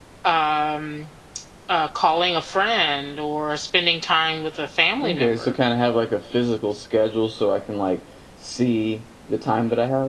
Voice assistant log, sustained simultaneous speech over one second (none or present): none